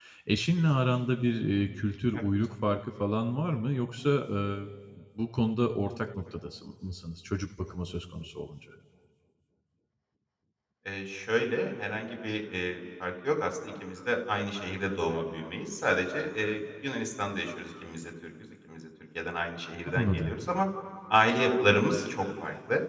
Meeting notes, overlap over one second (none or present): none